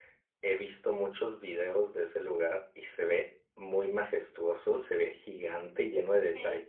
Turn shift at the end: Yes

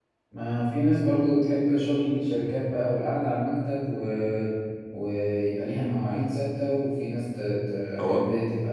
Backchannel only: Yes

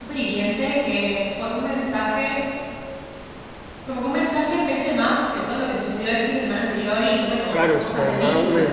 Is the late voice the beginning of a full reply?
Yes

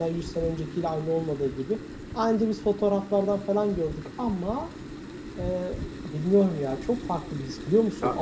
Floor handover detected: No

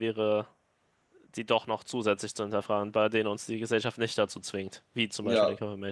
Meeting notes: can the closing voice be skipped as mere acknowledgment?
No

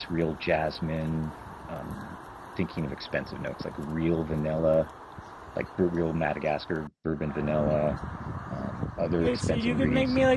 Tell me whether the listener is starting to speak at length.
Yes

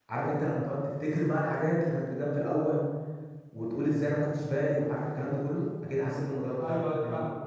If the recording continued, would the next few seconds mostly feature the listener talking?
Yes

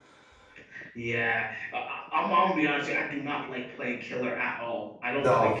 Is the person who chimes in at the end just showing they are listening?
Yes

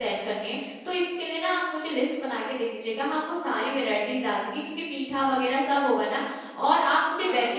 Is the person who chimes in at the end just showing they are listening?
Yes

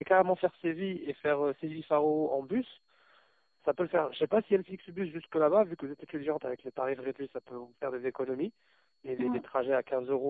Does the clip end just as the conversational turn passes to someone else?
No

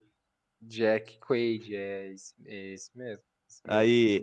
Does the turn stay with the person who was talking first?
No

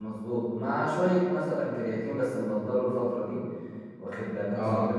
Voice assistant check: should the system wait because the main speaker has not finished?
Yes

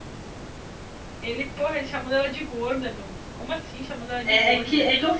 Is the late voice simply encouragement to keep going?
No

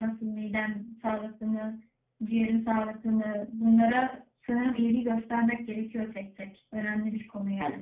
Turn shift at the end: Yes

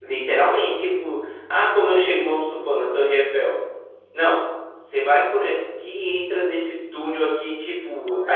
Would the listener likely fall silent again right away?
Yes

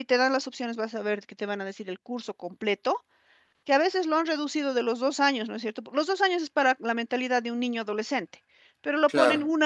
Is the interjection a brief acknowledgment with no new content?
Yes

